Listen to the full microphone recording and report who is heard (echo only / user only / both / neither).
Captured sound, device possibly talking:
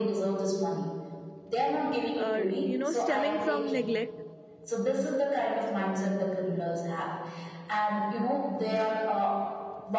both